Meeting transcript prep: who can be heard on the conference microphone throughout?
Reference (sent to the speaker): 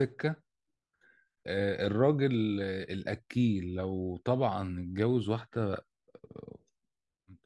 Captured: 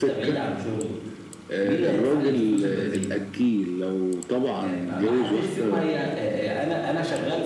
both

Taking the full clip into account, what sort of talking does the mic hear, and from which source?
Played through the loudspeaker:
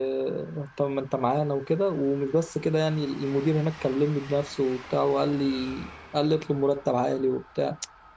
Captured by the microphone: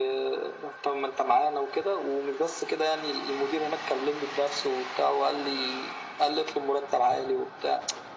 echo only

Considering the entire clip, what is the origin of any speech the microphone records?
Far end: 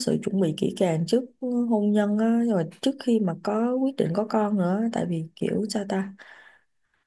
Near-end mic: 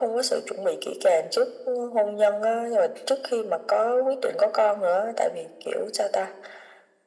echo only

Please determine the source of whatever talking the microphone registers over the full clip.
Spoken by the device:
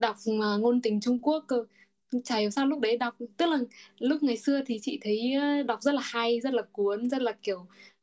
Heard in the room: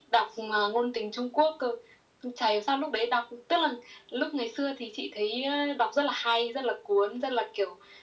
echo only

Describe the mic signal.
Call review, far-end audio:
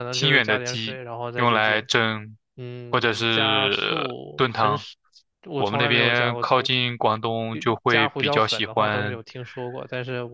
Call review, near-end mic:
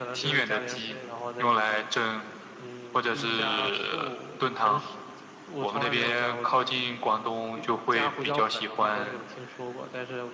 both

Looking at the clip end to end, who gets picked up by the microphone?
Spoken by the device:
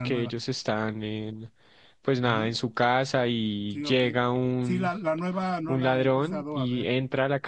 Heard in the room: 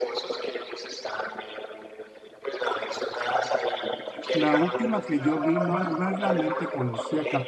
both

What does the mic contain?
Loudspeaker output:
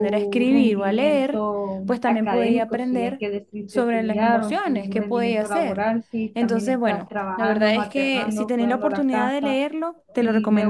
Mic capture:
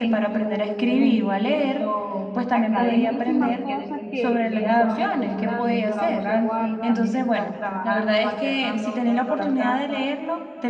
both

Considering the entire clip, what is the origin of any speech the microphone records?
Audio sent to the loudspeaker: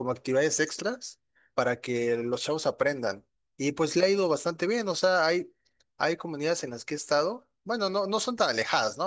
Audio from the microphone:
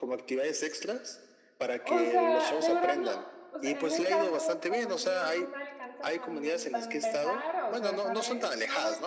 both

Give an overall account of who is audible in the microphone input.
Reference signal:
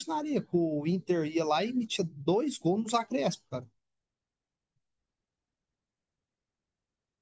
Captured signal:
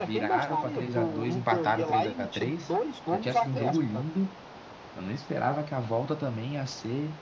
both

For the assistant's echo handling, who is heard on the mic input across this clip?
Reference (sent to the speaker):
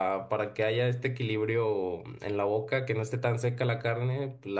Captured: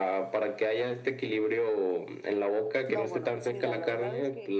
both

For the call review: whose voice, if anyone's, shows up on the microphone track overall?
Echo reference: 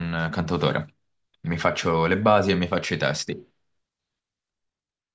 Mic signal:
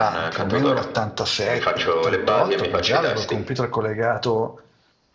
both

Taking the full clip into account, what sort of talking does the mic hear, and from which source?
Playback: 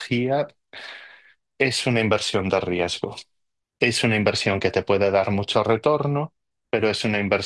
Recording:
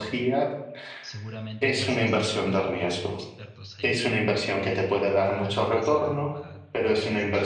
both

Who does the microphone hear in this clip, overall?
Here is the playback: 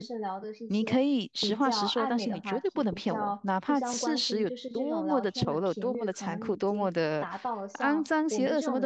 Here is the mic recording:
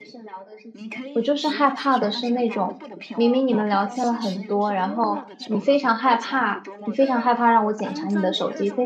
both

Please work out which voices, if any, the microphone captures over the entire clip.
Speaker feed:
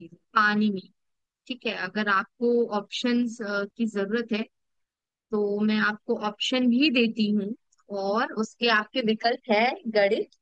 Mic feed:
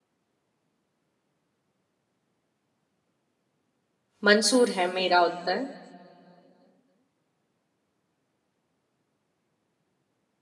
user only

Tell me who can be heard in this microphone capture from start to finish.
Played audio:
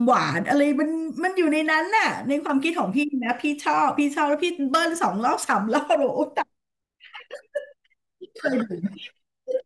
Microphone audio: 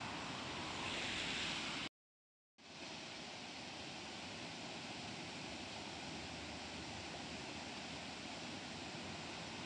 neither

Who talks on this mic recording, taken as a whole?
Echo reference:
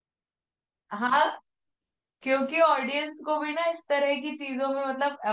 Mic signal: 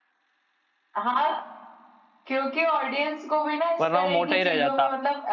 both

